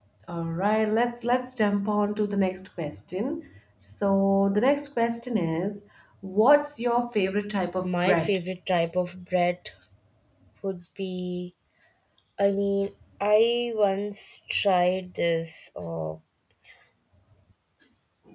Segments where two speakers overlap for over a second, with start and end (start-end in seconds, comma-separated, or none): none